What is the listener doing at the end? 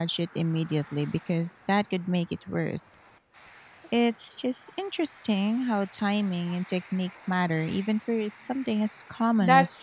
taking over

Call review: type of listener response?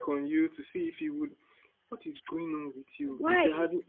listening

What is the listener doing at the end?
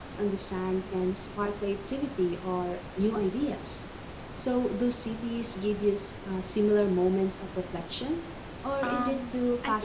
taking over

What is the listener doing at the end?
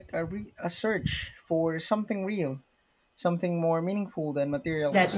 taking over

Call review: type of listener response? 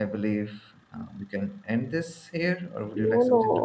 taking over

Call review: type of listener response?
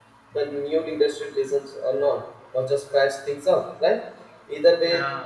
listening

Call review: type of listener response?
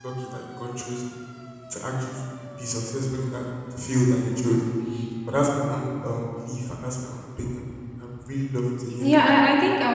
taking over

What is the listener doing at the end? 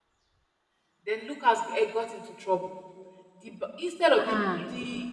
listening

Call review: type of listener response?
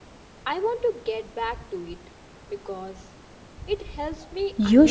taking over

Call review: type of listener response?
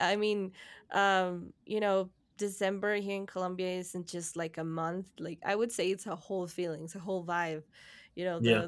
listening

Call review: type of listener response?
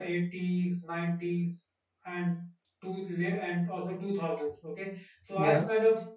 listening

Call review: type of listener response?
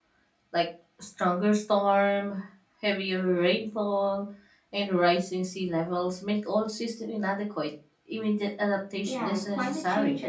taking over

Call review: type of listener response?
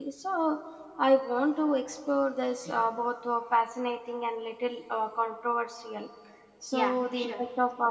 listening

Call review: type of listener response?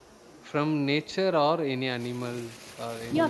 taking over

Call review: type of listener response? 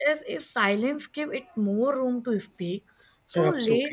listening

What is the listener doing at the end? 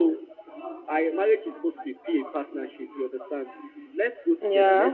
listening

